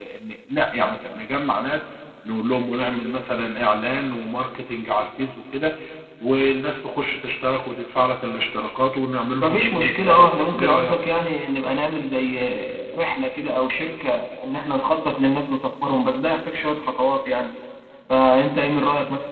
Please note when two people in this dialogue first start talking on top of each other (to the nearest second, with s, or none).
9 s